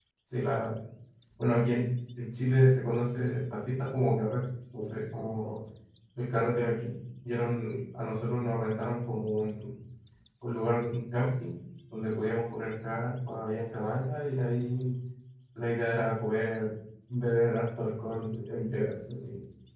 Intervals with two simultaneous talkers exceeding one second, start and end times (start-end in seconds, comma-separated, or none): none